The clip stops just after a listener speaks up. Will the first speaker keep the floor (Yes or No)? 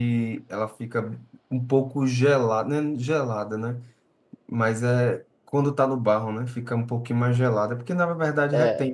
No